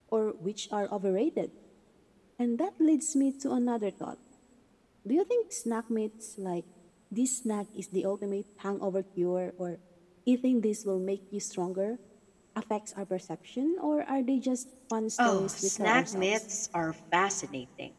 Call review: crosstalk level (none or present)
present